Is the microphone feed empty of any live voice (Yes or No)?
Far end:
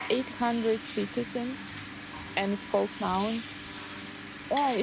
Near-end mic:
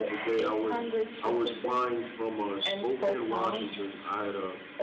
No